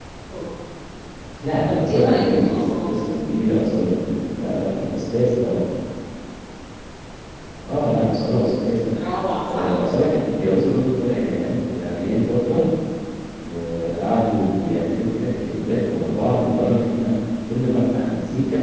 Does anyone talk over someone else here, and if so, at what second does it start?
1.6 s

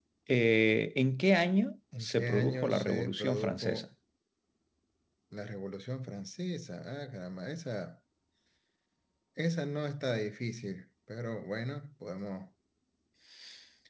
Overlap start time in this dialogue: 1.9 s

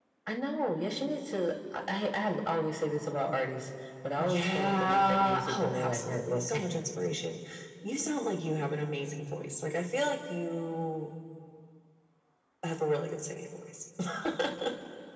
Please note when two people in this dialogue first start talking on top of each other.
4.2 s

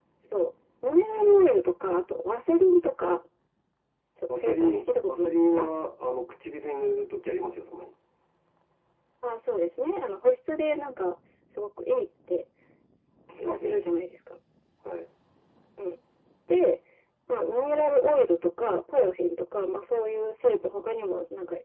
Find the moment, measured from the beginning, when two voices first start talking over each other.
4.4 s

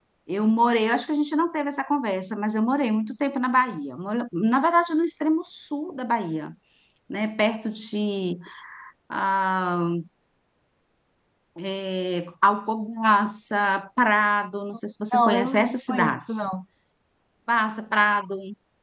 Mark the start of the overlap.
15.1 s

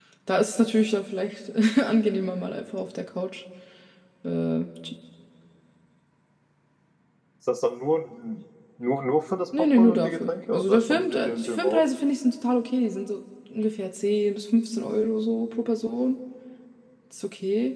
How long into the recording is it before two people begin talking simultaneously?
9.5 s

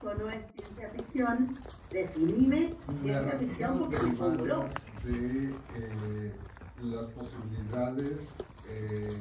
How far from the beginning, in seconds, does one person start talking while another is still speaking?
2.9 s

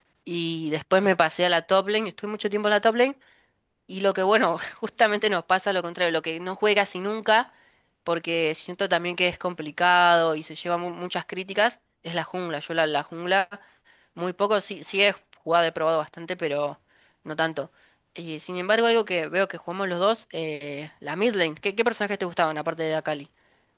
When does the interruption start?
none

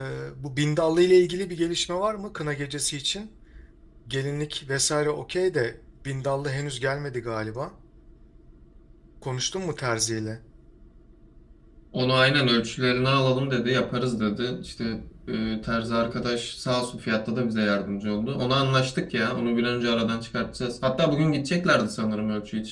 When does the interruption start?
none

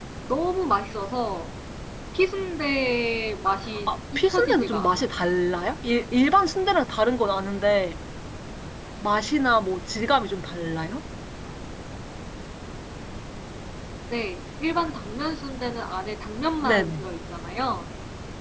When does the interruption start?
3.9 s

